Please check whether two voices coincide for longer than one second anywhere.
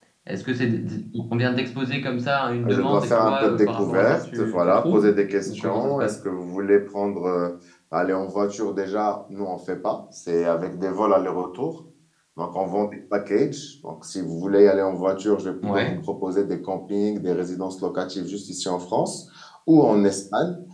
Yes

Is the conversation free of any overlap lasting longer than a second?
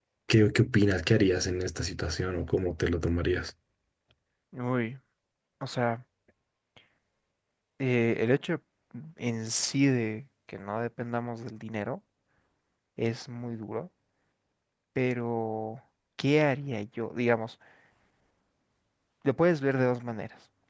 Yes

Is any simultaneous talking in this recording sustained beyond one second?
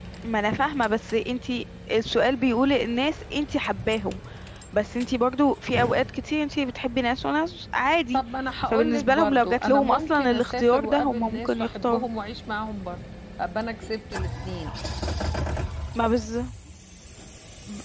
Yes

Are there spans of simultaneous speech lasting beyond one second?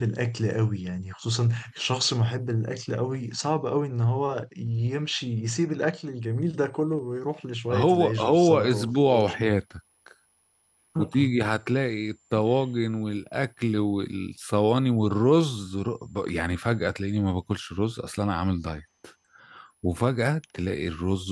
Yes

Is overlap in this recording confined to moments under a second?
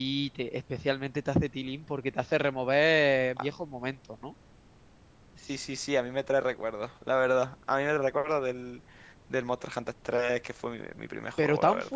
Yes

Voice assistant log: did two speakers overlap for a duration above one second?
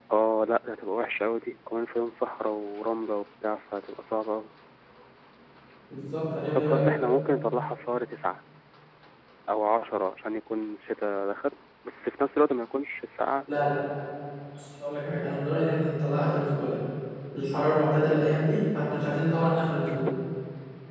No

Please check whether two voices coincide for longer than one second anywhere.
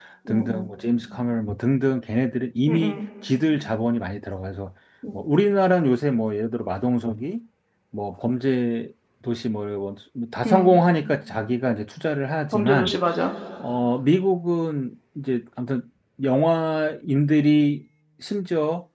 No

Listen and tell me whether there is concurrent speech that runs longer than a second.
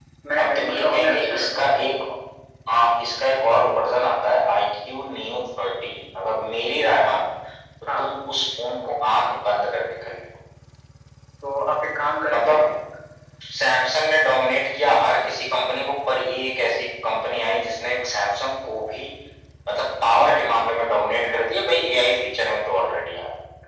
Yes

